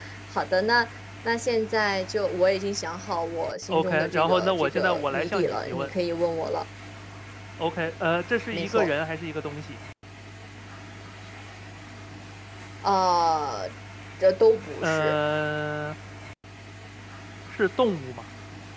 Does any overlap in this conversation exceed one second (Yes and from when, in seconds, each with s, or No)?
Yes, from 3.7 s